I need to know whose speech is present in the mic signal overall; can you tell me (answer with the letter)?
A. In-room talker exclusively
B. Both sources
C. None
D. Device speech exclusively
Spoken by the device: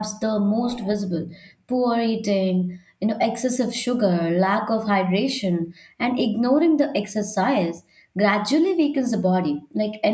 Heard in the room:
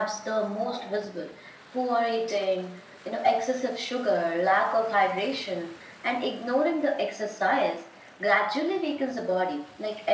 D